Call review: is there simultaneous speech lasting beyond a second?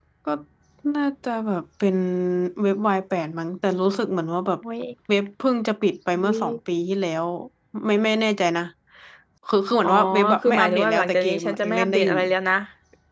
Yes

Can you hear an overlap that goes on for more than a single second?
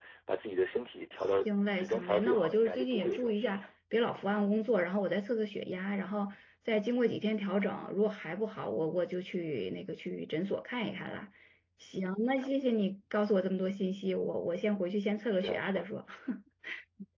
Yes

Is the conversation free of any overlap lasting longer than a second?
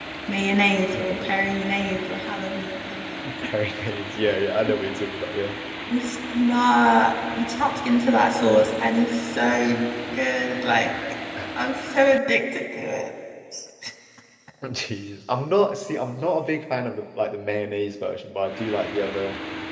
Yes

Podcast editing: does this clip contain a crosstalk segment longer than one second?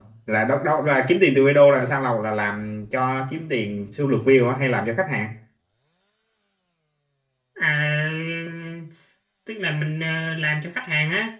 No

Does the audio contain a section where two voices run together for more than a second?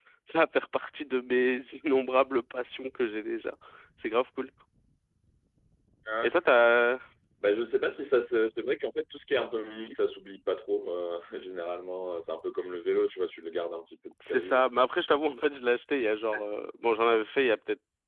No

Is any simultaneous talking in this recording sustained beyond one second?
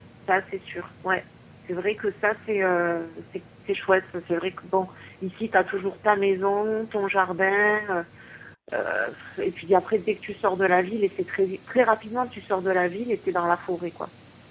No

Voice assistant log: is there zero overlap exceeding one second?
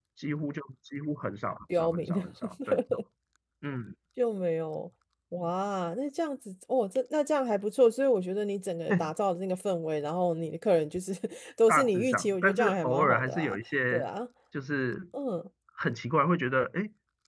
No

